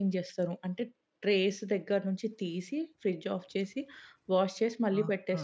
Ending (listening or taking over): taking over